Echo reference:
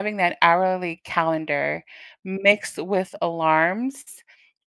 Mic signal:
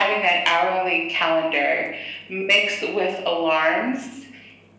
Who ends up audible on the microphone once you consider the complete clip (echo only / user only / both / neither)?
echo only